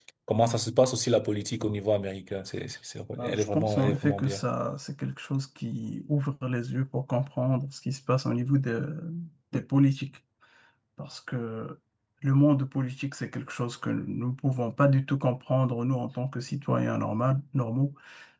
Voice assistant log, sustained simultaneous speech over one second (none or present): present